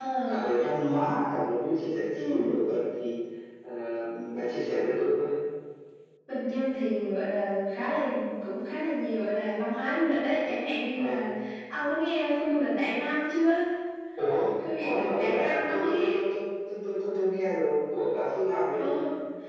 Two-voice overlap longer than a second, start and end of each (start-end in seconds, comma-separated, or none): 14.8-16.1